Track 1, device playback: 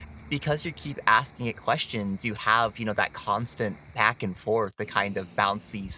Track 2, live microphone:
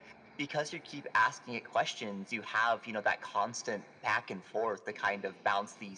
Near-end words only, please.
none

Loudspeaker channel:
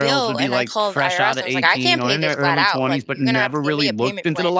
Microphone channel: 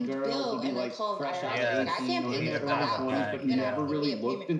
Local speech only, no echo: Yes. You need to dial it back. Yeah.

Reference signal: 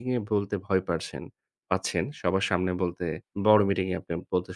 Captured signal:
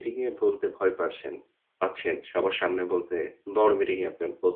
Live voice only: none

